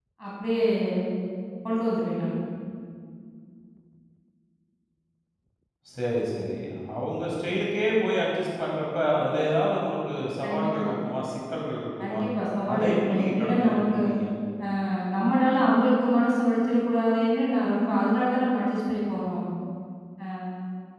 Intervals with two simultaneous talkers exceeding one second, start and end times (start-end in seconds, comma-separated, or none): 12.8-14.0